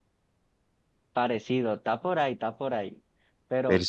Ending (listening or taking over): listening